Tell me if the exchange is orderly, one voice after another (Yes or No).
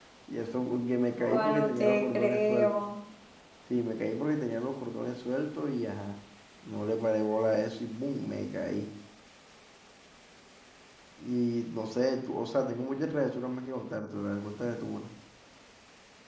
No